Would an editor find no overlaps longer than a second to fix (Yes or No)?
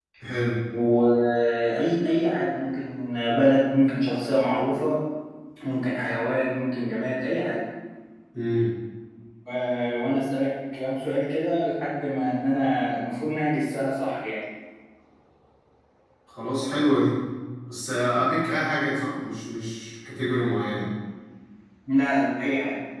Yes